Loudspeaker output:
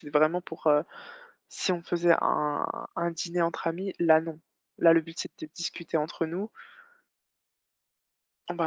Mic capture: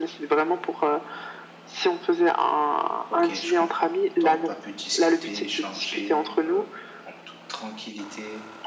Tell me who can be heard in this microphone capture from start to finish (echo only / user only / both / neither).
both